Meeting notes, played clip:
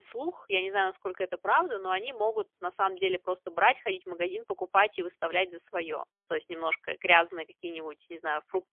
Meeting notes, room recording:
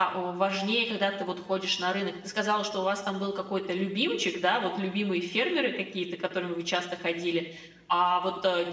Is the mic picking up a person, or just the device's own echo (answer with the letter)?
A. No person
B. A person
B